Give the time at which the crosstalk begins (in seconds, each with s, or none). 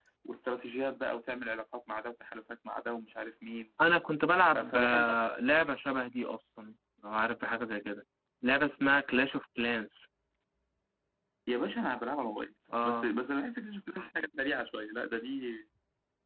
4.5 s